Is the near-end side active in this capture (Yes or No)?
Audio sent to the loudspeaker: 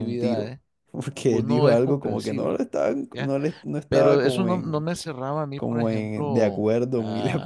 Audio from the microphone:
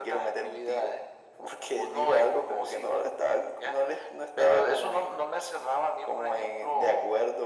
No